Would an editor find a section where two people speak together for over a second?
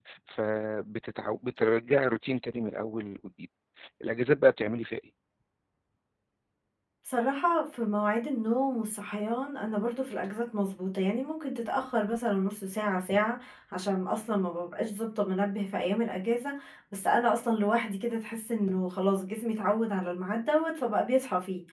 No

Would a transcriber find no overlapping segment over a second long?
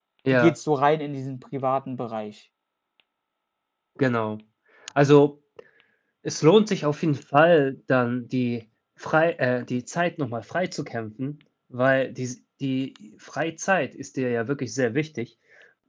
Yes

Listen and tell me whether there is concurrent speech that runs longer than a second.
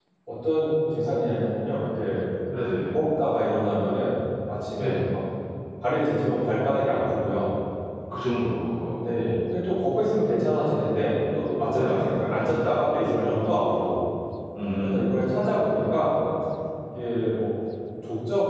No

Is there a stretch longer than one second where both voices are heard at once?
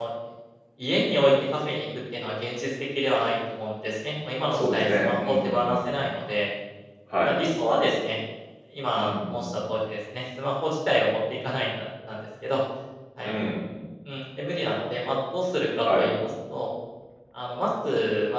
Yes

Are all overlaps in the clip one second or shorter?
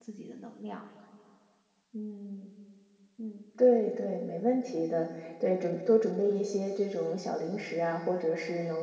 Yes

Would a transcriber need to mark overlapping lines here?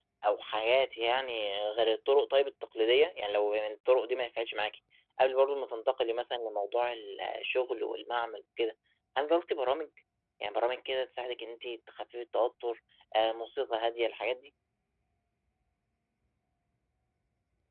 No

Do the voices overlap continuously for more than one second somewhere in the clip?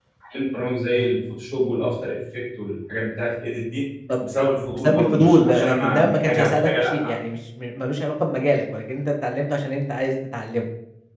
Yes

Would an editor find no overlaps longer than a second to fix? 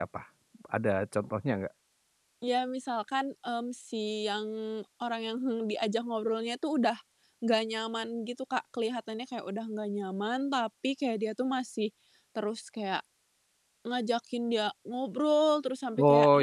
Yes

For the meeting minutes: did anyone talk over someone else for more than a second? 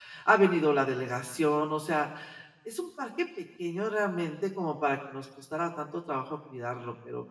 No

